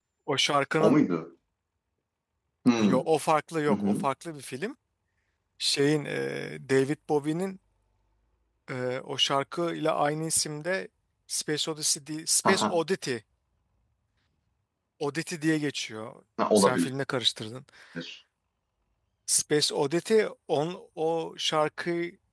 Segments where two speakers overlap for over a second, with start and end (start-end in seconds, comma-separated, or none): none